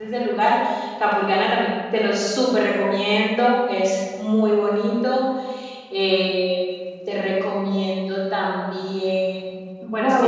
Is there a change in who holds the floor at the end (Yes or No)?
Yes